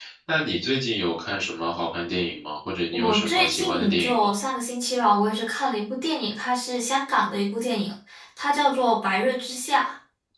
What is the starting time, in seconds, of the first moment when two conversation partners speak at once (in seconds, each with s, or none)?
2.9 s